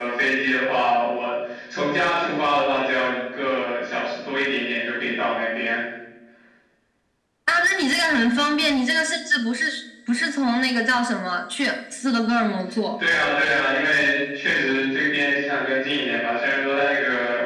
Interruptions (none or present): none